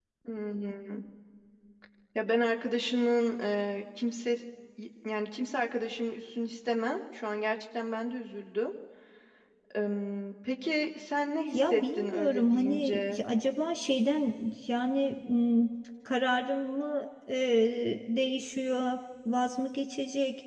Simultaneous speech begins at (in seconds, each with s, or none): 11.5 s